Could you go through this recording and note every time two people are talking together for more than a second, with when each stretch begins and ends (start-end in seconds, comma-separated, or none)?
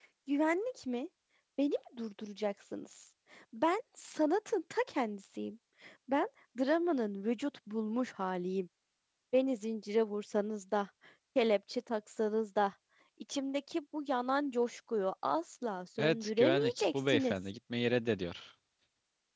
16.0-17.3